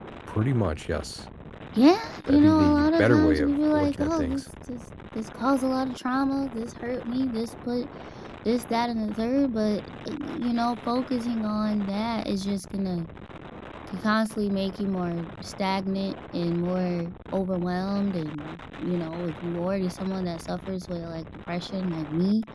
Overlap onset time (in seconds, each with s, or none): 2.3 s